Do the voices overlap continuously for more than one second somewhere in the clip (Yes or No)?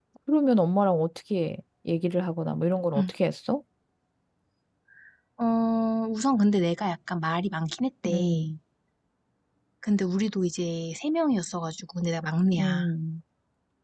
No